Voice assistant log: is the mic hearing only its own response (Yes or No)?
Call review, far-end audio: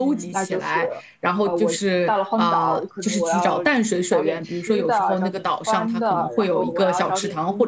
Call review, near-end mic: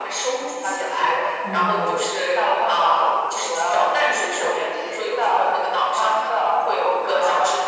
No